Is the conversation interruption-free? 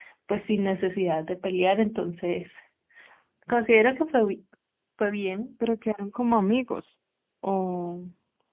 Yes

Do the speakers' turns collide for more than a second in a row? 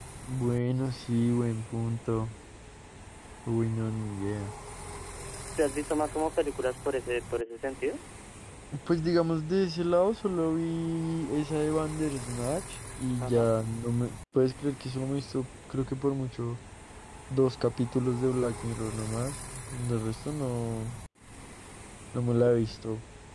No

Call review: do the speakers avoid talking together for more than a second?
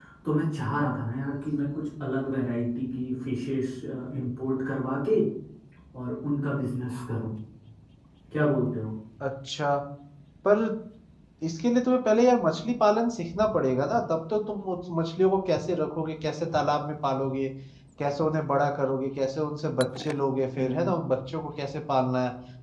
Yes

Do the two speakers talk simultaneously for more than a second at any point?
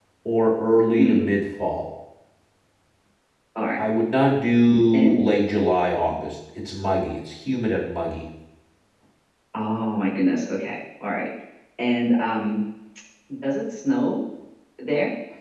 No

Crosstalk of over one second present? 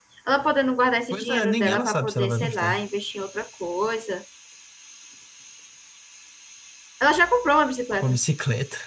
Yes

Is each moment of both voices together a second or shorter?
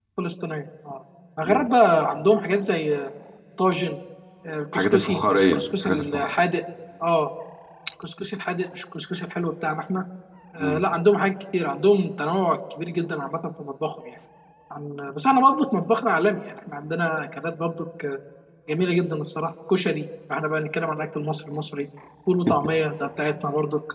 No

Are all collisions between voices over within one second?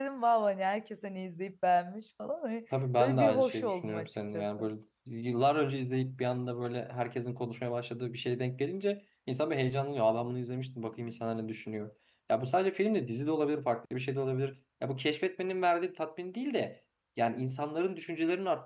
No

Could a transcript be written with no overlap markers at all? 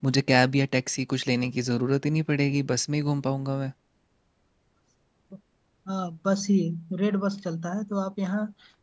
Yes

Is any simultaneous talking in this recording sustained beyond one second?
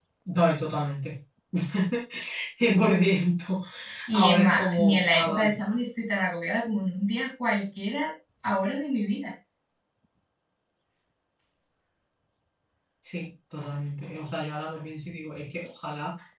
Yes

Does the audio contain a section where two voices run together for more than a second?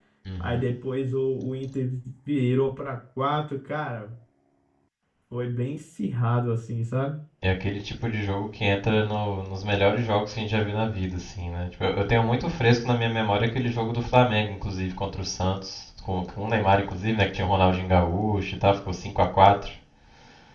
No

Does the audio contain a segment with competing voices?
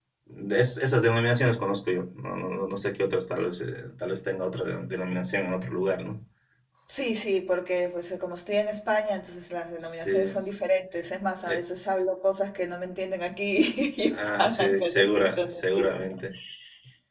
Yes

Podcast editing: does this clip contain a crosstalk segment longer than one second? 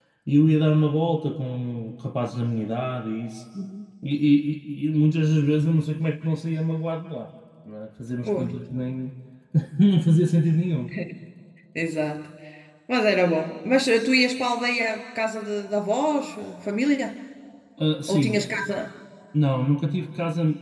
No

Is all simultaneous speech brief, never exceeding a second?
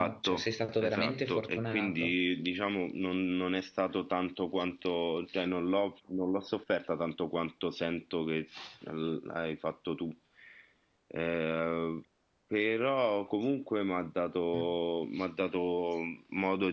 No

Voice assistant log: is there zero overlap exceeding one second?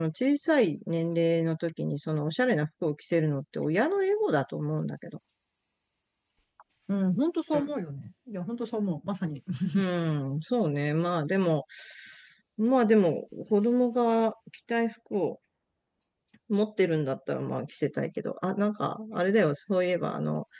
Yes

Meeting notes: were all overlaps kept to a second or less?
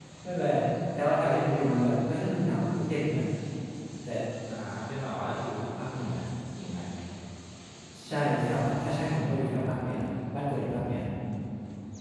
Yes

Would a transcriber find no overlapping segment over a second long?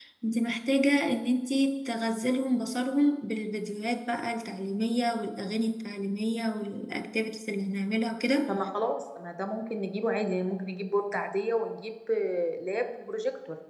Yes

